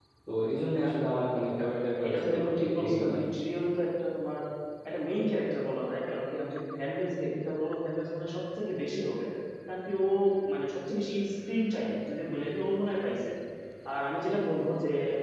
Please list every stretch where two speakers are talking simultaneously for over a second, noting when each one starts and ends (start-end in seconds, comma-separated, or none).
1.9-3.2